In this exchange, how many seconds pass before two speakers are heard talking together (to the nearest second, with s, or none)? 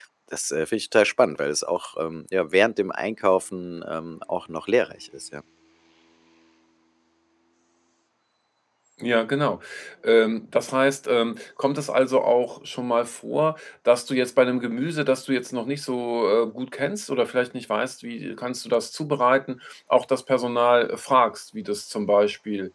none